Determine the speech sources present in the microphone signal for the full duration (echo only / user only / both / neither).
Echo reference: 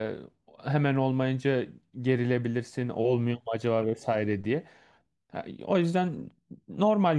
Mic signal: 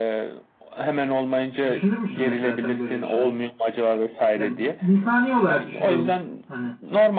both